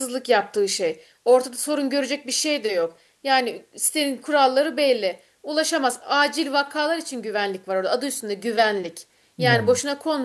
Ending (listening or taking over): listening